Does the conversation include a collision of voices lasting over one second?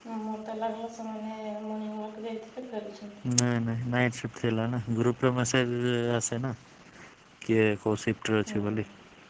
No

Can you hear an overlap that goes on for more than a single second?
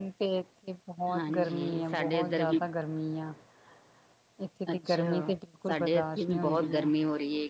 Yes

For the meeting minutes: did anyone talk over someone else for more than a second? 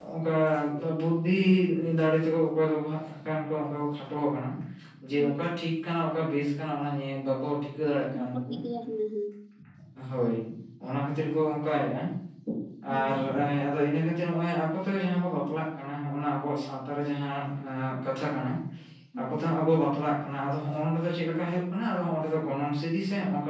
No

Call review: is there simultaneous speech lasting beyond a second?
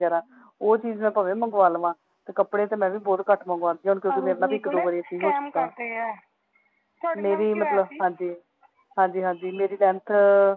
Yes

